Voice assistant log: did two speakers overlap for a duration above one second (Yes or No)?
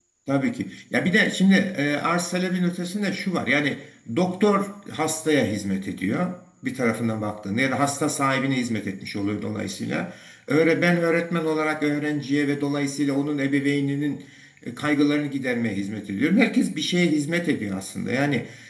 No